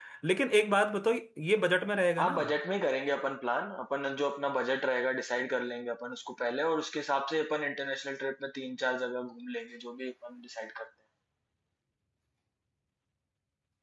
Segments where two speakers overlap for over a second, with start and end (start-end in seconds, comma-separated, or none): none